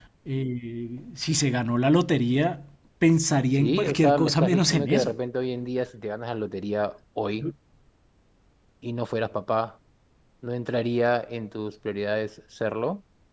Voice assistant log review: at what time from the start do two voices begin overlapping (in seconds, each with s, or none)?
3.5 s